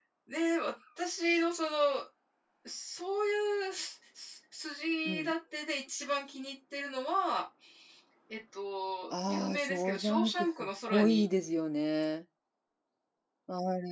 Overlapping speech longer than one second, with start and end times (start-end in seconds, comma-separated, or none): 9.1-11.2